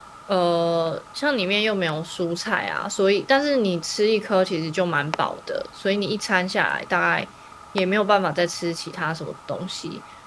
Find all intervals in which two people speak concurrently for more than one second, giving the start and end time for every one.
none

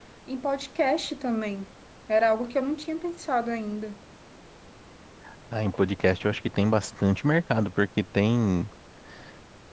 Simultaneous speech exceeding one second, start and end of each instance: none

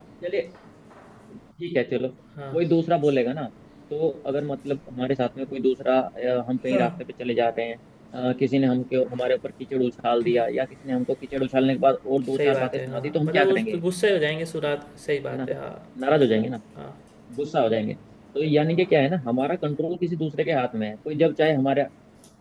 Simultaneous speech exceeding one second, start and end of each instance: 12.4-13.8

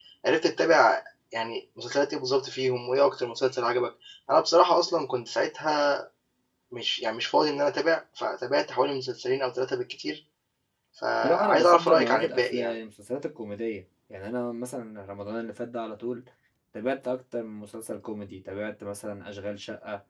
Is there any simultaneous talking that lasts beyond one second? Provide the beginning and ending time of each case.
11.2-12.8

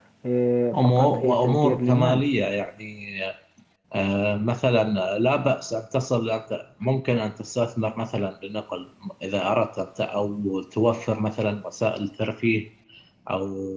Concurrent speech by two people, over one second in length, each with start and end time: 0.8-2.3

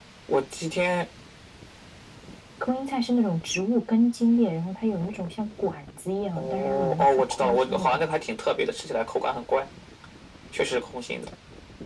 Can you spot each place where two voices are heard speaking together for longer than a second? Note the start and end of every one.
6.4-8.0

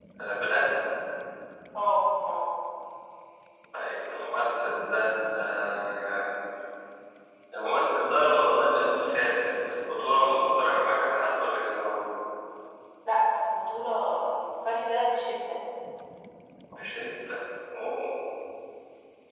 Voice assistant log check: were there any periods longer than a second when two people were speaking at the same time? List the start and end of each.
none

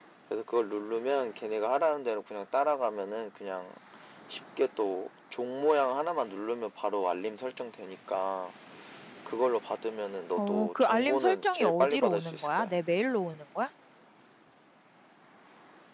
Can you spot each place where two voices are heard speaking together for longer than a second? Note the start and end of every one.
10.4-12.7

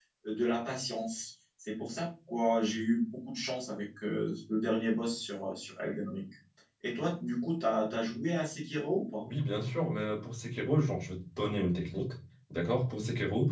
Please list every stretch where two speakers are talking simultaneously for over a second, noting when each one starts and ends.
none

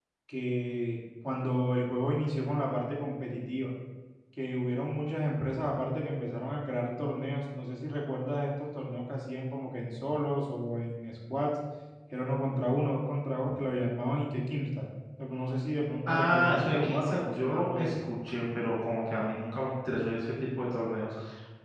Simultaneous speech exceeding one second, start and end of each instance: 16.1-17.9

